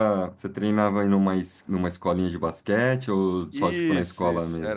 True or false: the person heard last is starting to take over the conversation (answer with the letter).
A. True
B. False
A